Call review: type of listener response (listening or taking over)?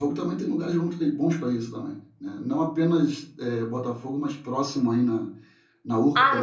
taking over